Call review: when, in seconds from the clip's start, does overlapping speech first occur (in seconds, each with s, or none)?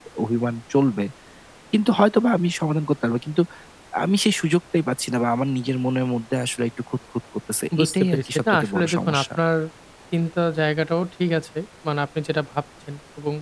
7.7 s